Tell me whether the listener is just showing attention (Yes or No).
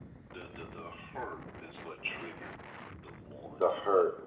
No